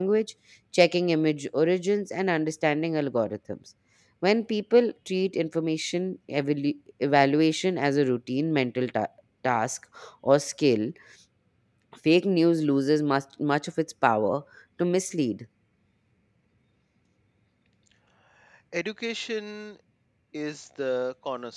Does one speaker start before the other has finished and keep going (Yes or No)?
No